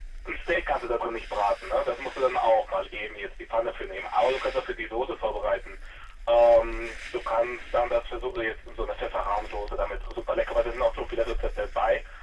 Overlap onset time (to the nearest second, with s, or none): none